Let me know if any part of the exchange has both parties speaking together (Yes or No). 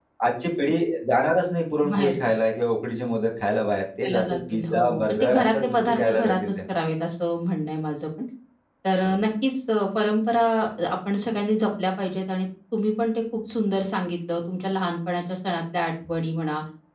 Yes